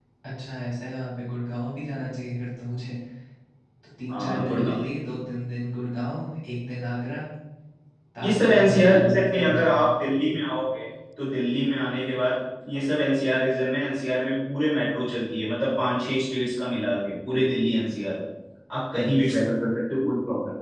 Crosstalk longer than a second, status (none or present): present